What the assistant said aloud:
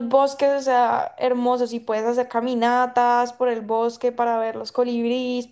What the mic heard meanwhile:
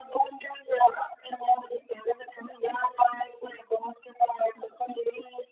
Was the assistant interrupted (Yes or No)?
No